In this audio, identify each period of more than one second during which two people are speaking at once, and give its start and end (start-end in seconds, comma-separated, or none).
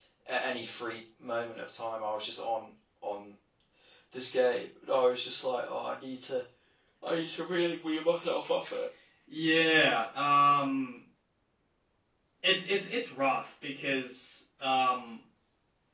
none